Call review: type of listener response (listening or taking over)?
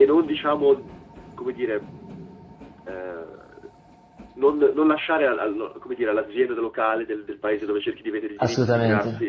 listening